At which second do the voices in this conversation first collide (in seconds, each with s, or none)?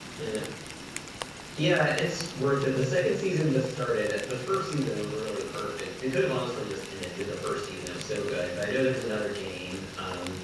none